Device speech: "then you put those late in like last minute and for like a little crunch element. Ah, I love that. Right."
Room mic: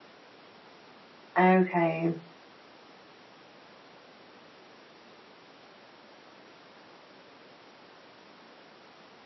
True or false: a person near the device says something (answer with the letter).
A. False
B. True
B